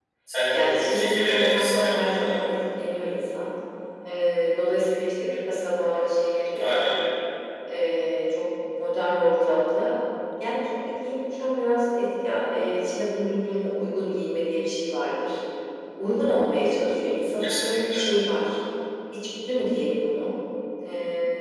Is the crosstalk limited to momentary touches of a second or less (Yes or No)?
No